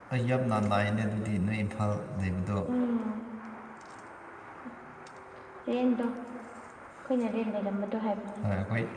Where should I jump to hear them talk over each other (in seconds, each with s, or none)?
none